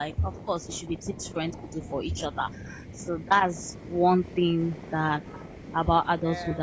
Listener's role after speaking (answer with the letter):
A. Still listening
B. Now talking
A